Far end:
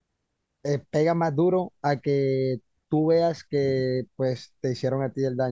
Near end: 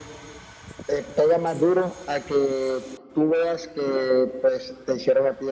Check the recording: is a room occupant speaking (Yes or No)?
No